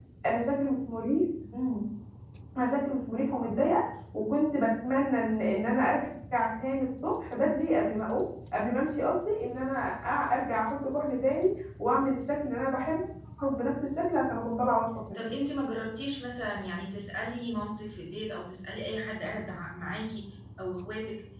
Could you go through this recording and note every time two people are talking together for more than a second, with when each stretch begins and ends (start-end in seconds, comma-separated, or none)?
none